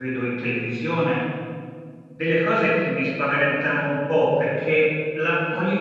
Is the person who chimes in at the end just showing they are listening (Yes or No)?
Yes